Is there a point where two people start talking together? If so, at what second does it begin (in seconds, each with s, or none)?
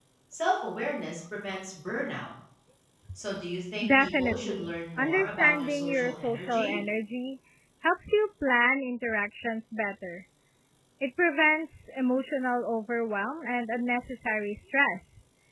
3.9 s